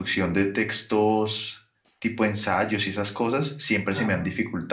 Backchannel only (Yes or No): Yes